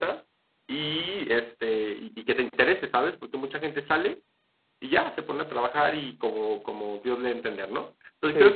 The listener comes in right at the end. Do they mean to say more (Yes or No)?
No